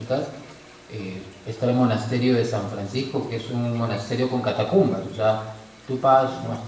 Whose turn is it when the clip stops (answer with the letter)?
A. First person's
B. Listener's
A